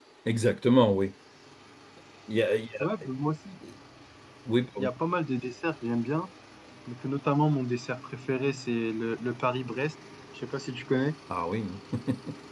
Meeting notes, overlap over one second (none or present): none